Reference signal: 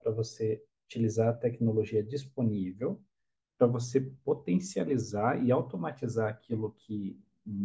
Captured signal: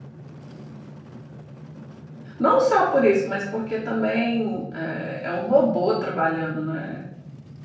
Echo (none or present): none